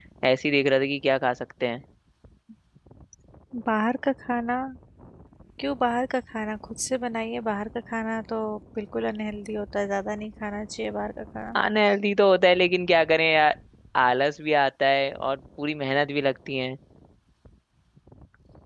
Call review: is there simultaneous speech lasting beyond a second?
No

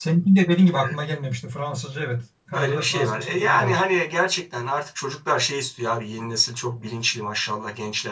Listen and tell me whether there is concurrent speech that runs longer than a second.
Yes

